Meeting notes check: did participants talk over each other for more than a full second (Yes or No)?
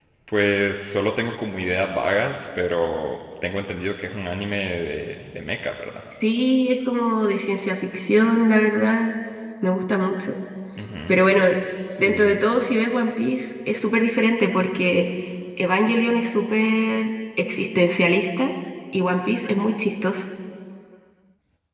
No